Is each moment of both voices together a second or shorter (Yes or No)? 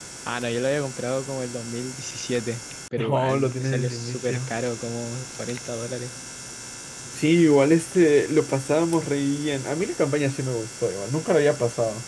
No